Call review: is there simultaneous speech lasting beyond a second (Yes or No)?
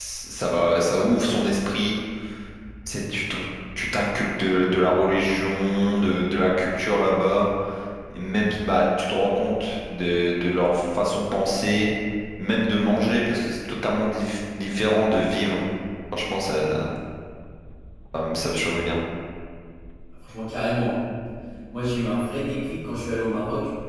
No